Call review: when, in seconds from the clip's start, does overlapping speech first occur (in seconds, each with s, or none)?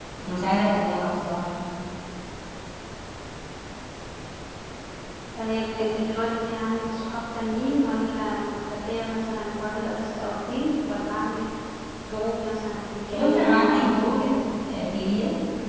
13.1 s